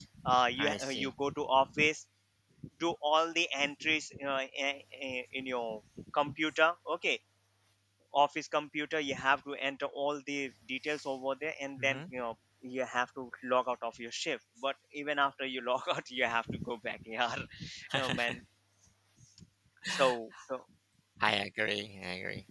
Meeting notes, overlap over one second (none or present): none